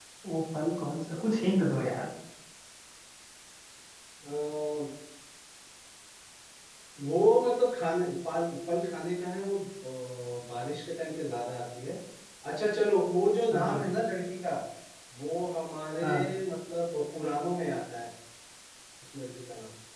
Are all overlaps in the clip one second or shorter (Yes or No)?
Yes